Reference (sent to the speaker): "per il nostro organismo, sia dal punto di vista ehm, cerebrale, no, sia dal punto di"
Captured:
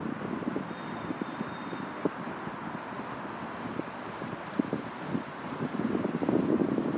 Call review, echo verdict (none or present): none